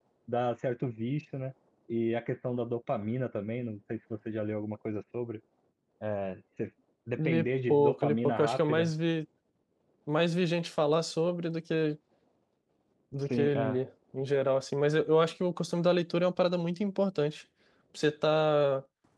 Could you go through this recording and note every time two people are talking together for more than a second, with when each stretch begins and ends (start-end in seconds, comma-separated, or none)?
7.2-8.9